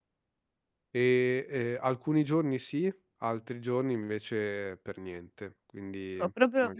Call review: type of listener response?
taking over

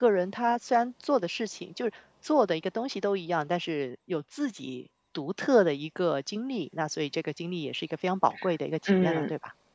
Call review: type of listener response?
taking over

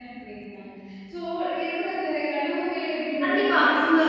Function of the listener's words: taking over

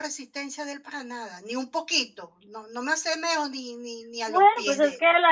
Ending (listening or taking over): taking over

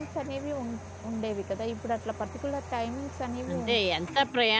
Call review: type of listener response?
taking over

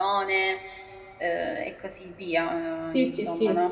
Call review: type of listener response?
taking over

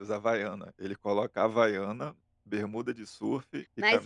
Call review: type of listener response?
taking over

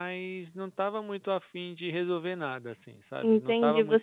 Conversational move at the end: taking over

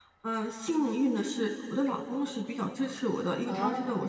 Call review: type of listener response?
listening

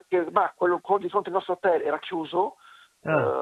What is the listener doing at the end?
listening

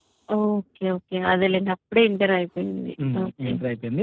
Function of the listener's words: taking over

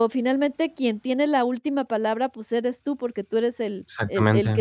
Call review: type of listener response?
listening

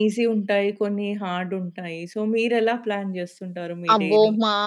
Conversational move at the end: taking over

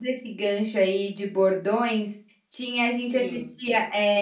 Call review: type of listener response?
listening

